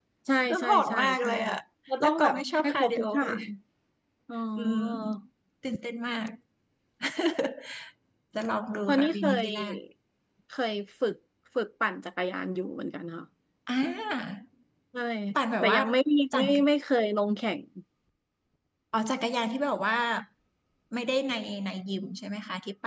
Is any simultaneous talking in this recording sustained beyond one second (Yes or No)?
Yes